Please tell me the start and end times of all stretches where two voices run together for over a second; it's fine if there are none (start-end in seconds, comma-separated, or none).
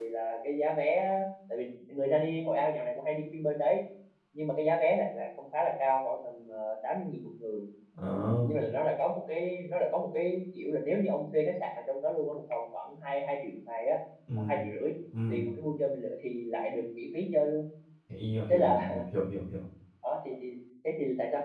none